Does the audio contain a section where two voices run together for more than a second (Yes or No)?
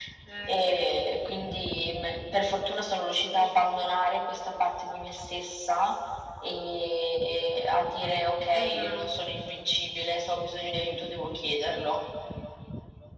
No